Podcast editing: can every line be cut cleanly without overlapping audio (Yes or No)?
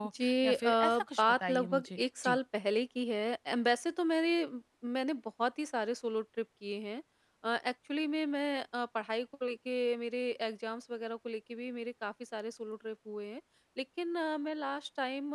No